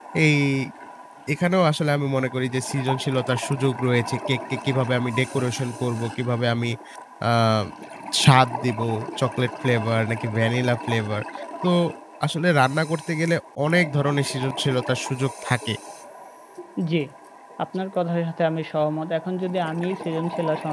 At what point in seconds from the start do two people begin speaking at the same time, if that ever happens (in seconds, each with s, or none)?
none